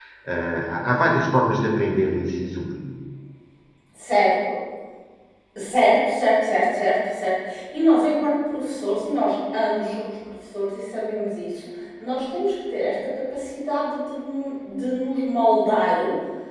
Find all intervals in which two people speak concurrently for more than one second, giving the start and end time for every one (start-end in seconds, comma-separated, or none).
none